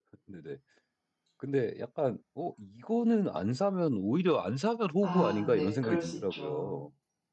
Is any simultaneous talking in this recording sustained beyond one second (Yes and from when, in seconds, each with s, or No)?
Yes, from 5.0 s